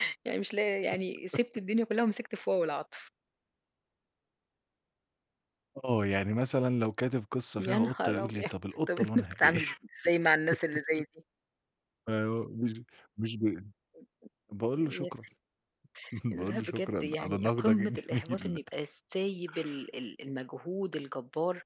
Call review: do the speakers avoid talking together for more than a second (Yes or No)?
No